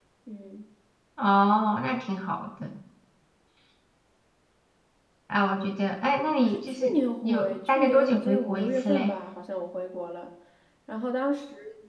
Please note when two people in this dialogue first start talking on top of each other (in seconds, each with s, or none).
6.4 s